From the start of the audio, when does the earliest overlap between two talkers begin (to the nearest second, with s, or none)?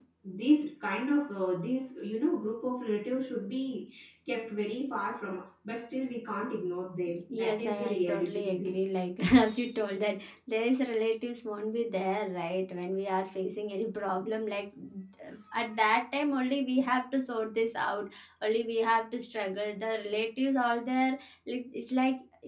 7 s